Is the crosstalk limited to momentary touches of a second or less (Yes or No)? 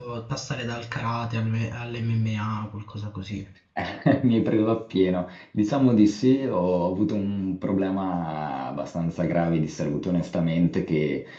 Yes